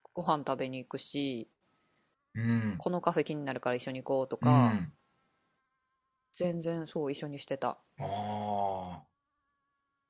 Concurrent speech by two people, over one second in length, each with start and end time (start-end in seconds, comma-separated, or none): none